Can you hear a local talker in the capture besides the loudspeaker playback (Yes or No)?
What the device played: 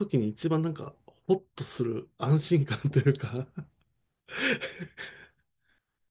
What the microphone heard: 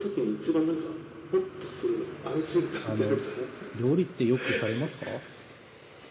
Yes